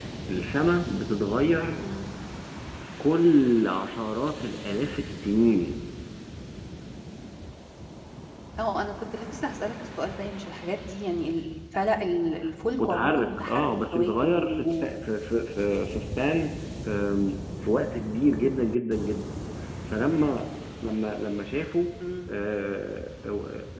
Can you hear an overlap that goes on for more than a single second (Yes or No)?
Yes